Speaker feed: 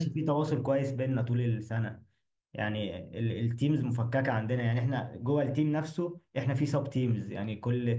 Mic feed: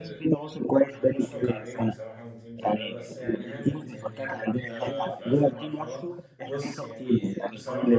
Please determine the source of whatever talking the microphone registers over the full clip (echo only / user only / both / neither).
both